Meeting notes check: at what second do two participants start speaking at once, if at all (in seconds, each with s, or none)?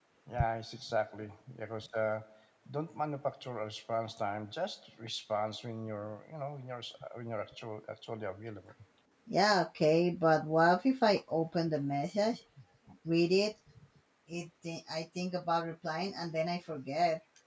none